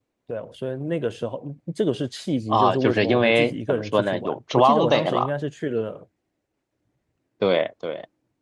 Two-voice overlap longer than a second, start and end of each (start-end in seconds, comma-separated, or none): 2.5-5.3